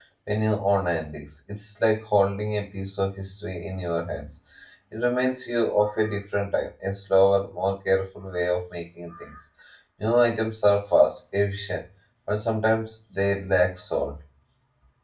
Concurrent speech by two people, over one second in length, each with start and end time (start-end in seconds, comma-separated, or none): none